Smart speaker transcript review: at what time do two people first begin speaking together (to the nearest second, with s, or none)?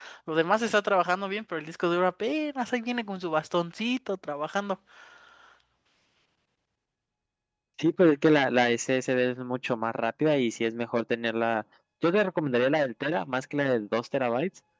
none